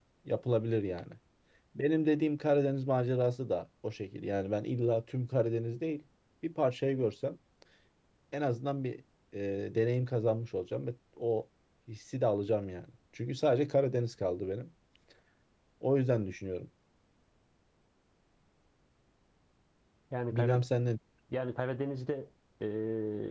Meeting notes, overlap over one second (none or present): none